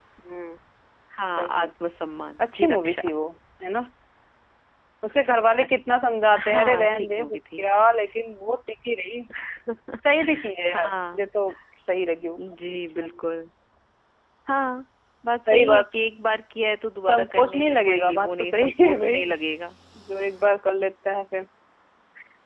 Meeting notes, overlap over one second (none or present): present